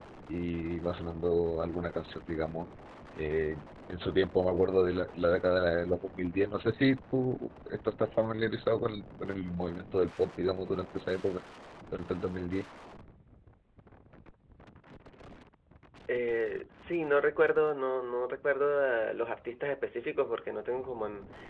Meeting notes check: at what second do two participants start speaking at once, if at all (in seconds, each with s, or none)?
none